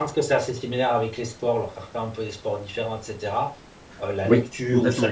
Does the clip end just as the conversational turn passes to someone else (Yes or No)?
No